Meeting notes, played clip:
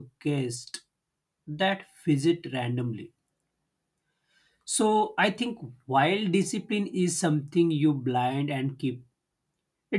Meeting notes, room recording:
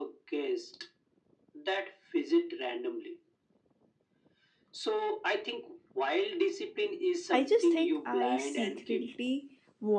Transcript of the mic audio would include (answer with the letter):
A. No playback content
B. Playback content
B